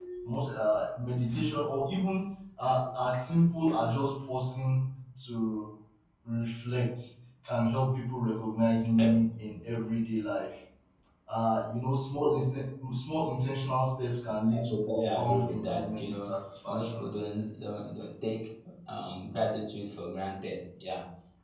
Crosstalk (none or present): present